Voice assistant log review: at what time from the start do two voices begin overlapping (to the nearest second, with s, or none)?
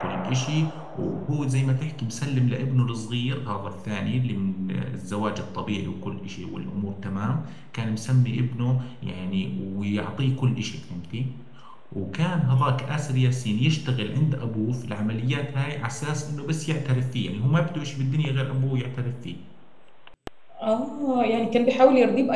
none